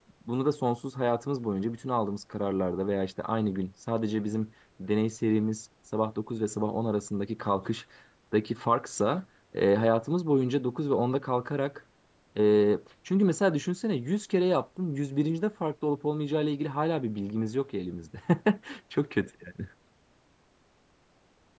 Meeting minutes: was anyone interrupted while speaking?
No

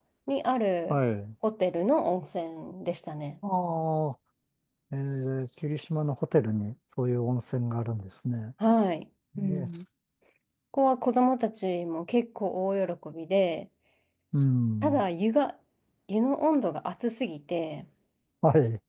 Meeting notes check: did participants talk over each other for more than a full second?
No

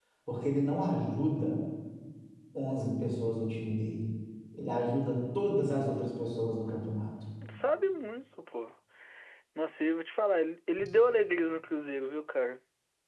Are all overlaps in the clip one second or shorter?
Yes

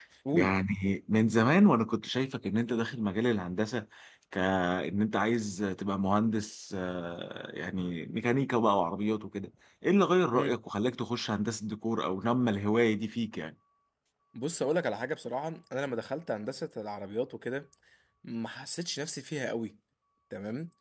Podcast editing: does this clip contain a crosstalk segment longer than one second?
No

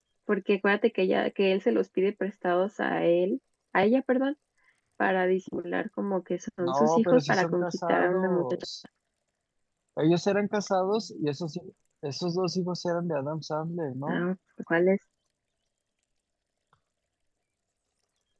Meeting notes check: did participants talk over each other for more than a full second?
Yes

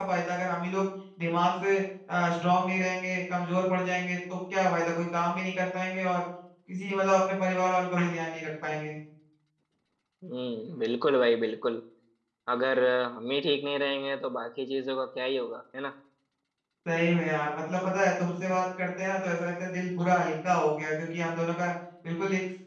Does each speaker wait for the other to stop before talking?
Yes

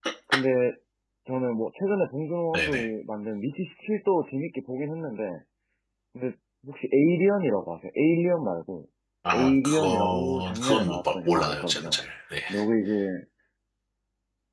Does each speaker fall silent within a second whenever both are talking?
No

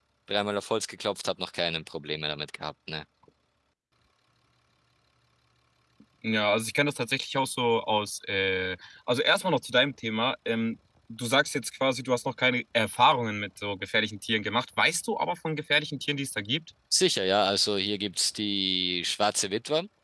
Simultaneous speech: No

